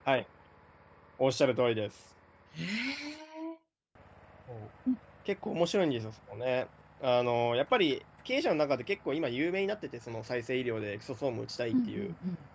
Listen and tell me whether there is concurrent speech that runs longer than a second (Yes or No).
No